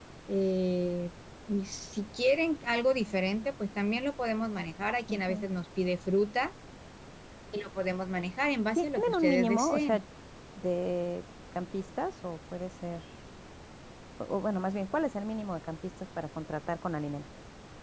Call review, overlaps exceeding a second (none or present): present